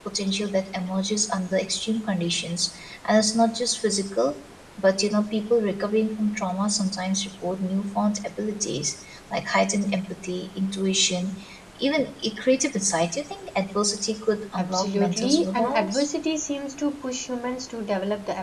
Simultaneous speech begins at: 14.6 s

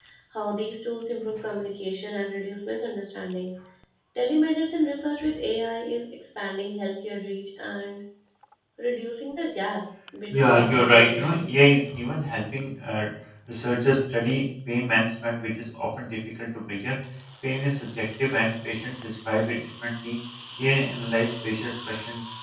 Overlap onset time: 10.3 s

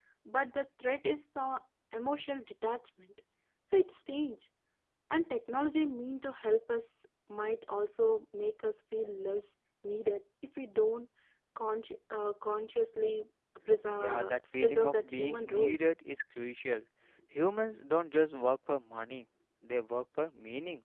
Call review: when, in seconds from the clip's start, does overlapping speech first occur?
14.0 s

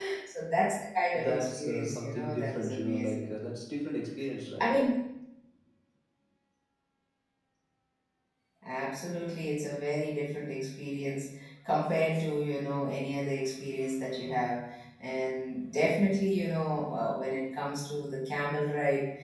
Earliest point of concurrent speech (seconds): 1.1 s

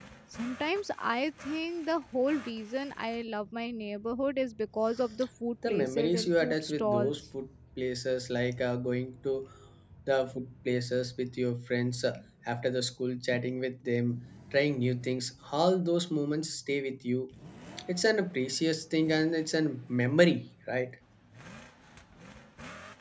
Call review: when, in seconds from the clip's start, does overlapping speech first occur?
5.6 s

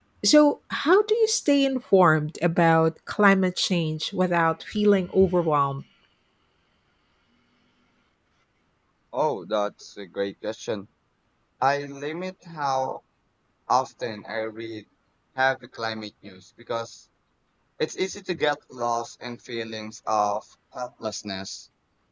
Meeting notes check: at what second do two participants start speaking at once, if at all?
none

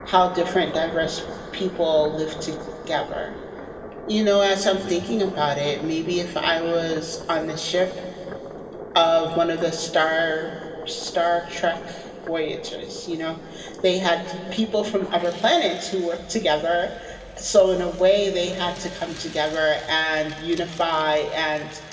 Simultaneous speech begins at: none

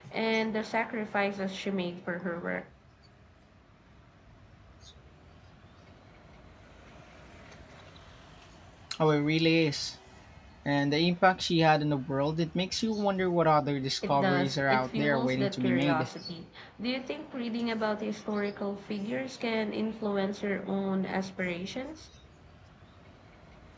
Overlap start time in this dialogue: 14.0 s

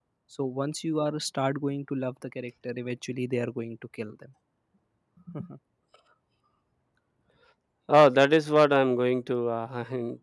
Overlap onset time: none

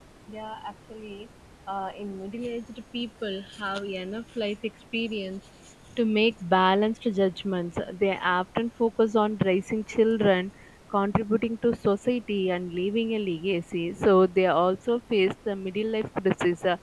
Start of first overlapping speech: none

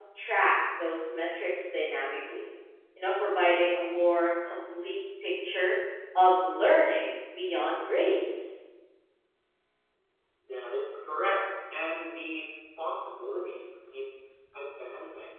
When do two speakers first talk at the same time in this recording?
none

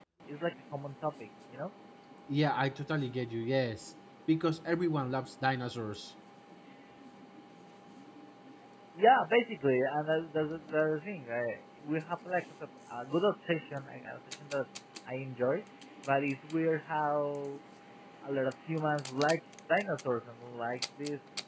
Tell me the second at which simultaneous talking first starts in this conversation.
none

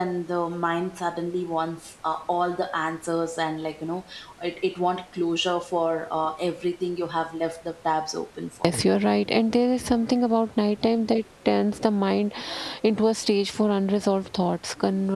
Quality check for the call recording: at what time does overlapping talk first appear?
none

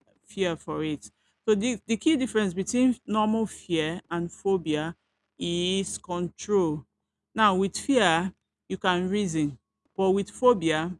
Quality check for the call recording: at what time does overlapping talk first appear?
none

